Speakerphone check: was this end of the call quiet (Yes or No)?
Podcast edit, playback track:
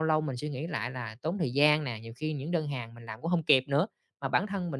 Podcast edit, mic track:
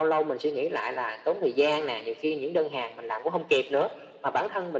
Yes